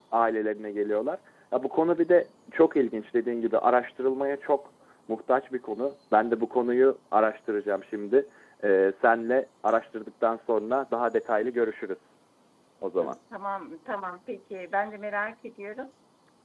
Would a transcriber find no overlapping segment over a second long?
Yes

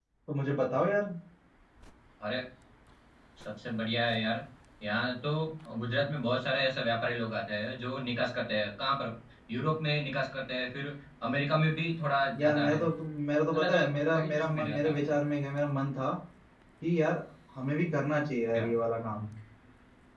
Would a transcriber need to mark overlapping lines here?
Yes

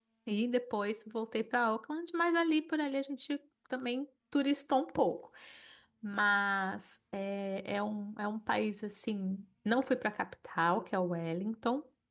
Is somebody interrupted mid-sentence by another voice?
No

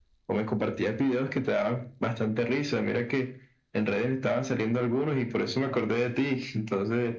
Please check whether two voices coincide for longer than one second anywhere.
No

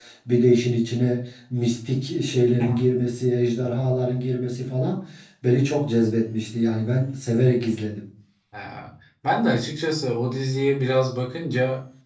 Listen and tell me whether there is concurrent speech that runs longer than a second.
No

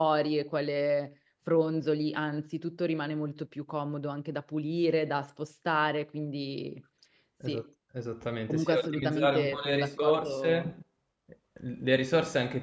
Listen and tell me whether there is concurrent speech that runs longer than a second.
Yes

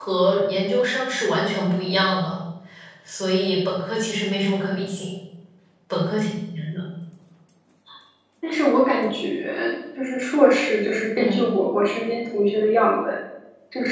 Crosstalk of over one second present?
No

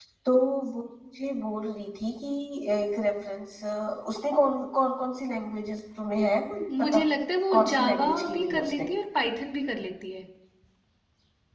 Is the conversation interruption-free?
No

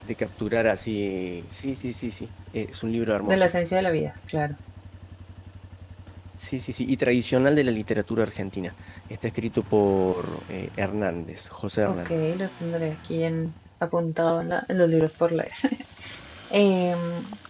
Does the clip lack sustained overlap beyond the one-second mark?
Yes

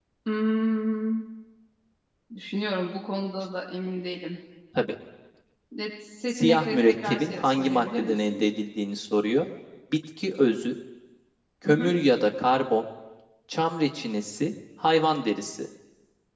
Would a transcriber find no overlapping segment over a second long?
No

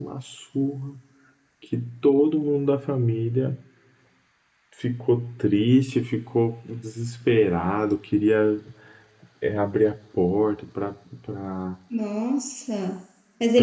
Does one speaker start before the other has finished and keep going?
No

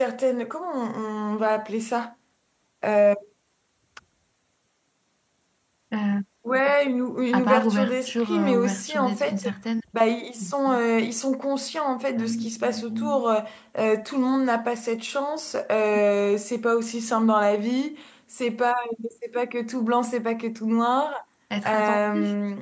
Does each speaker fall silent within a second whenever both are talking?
No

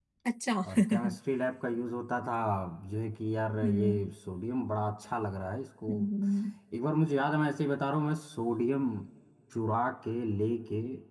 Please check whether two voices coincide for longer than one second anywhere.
No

